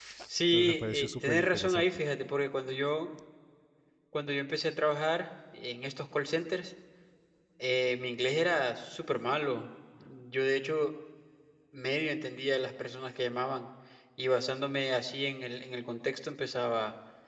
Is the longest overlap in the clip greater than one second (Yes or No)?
Yes